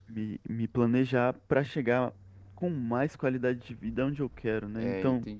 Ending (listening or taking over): taking over